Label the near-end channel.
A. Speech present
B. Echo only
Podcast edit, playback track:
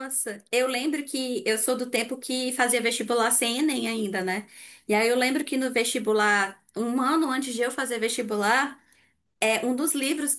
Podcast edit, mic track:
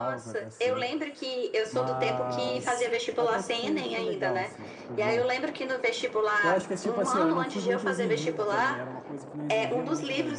A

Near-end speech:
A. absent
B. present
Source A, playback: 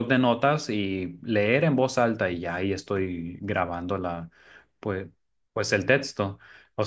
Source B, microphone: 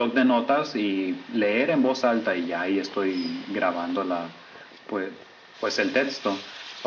A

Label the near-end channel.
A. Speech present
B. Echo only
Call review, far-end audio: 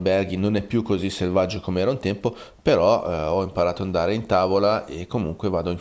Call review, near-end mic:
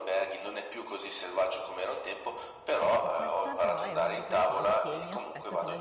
A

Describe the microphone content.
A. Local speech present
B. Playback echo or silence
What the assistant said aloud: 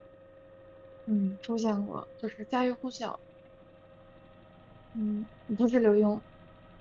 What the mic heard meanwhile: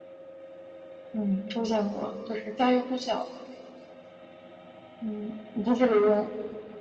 B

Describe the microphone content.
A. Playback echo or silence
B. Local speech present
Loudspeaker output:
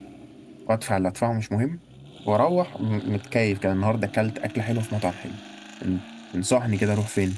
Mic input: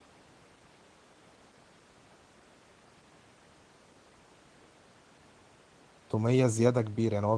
B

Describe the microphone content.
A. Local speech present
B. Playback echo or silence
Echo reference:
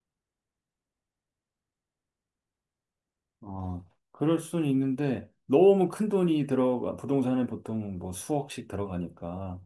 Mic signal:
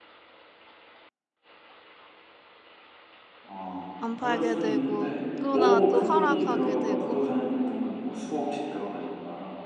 A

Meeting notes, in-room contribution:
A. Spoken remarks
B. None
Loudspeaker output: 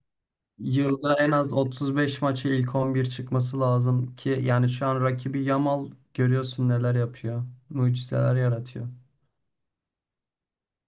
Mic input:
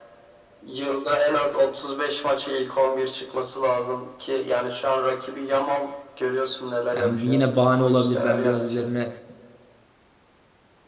A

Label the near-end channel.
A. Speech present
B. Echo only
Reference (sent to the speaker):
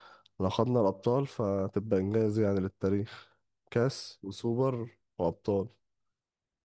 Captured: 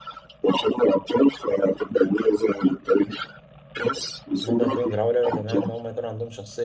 A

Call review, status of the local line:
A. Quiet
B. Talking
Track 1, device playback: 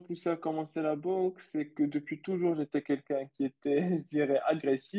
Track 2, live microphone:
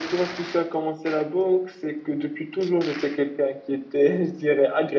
A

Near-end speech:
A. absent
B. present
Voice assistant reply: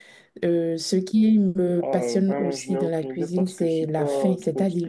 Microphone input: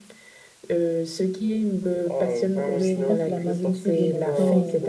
B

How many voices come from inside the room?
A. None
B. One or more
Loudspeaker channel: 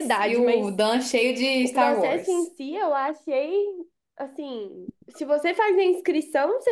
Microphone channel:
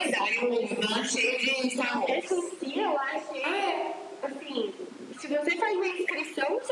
B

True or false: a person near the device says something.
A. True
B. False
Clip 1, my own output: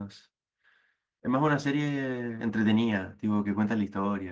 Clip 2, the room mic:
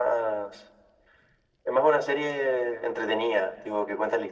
B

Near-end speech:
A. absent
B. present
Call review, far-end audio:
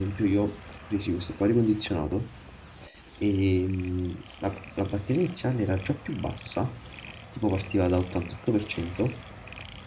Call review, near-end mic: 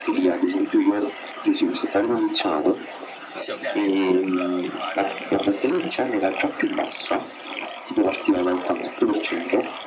B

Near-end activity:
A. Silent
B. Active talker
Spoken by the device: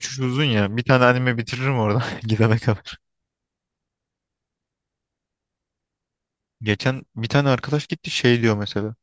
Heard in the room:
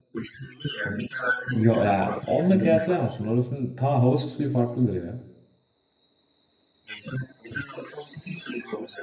B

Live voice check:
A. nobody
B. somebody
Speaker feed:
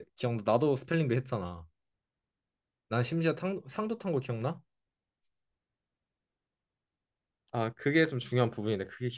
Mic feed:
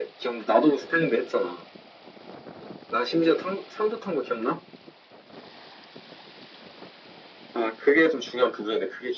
A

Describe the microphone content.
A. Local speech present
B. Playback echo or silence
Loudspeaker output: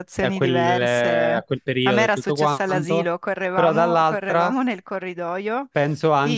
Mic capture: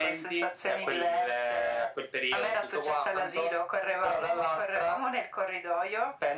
B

